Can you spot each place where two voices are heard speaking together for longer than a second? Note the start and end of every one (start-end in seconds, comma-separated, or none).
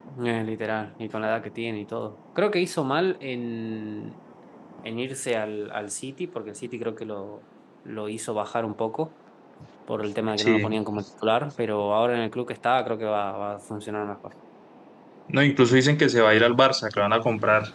none